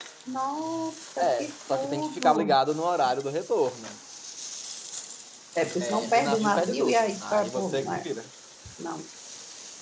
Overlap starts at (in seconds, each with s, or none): 1.2 s